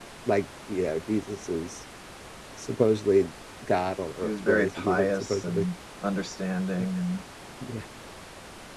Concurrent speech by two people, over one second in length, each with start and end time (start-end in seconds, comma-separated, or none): 4.2-5.7